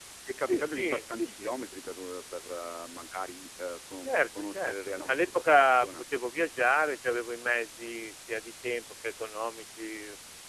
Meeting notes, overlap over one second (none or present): present